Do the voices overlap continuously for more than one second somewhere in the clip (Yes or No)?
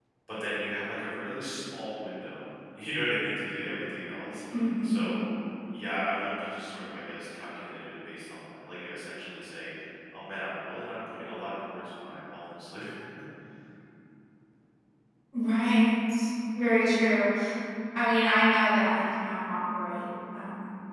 No